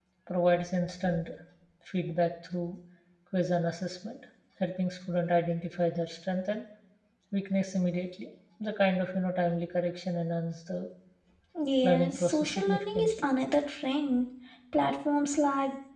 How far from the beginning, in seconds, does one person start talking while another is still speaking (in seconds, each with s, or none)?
11.8 s